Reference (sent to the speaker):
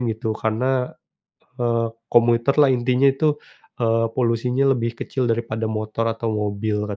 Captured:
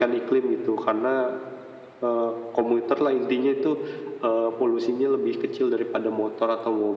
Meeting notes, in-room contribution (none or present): none